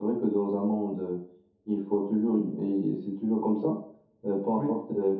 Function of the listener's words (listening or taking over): listening